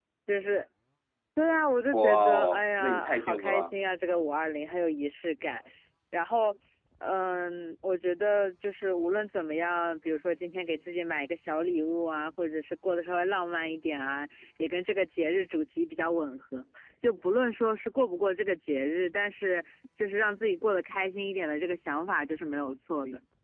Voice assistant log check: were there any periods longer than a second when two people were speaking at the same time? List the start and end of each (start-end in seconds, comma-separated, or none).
1.9-3.7